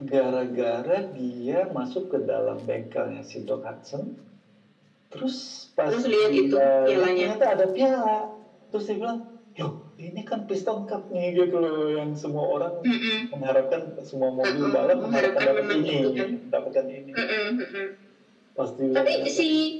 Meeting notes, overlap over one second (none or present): present